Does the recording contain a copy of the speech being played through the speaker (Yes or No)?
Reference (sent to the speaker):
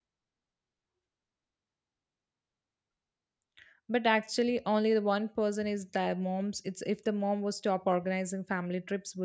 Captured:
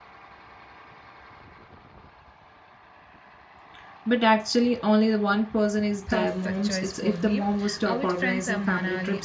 Yes